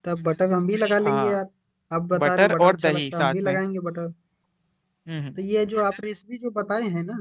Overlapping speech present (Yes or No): Yes